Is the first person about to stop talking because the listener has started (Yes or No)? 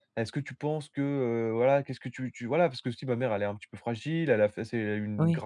No